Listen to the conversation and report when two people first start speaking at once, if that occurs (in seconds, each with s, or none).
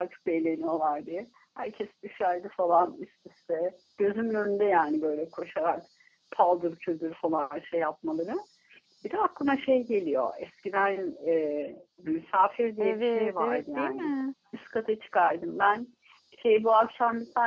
12.8 s